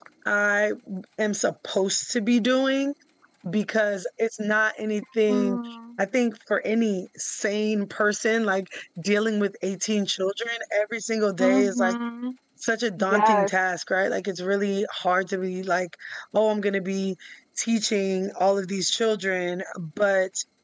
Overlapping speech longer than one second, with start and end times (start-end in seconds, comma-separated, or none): none